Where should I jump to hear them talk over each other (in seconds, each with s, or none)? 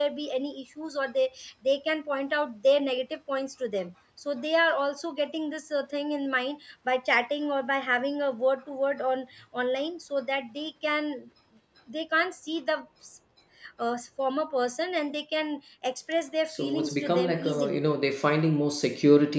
16.5 s